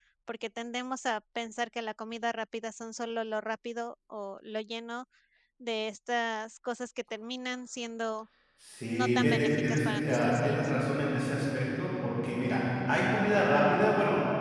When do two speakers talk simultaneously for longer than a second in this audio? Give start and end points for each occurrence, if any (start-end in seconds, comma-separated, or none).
8.8-10.7